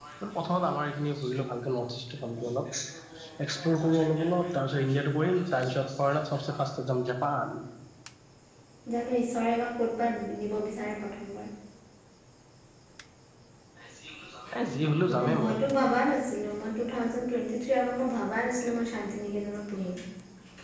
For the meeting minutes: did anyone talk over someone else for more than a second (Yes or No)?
No